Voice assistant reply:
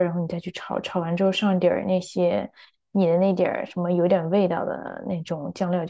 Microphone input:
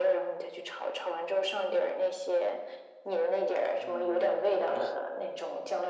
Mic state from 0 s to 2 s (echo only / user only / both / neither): echo only